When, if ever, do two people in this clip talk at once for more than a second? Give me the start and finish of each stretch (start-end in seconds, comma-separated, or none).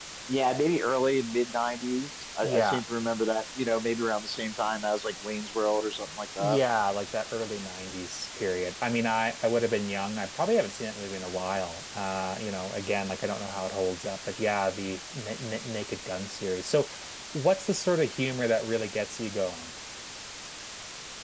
none